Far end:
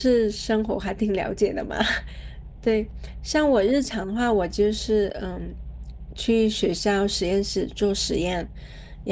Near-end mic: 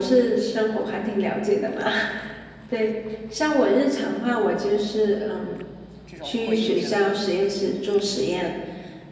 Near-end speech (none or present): present